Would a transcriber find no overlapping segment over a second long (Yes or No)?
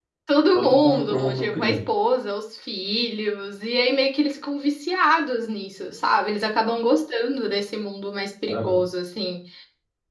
No